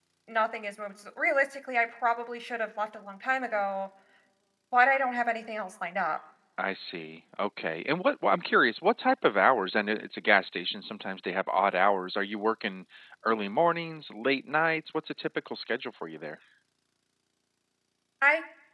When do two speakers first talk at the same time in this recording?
none

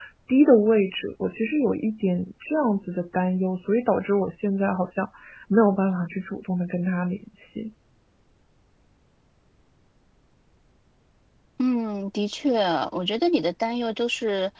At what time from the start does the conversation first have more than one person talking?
none

